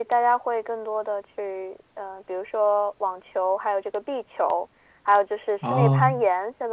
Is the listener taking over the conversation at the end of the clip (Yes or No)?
No